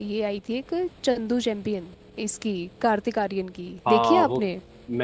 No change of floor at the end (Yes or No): No